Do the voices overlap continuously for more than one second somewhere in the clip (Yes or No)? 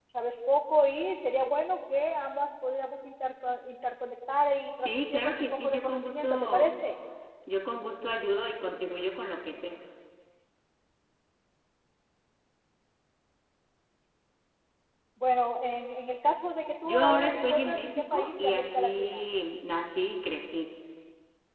Yes